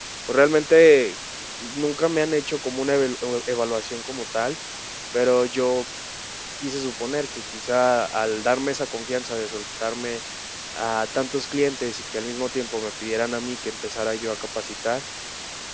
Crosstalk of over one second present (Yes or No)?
No